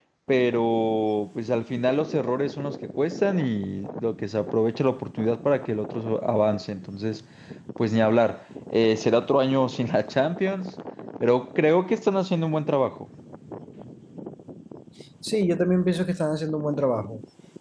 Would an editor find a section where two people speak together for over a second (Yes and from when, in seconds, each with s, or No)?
No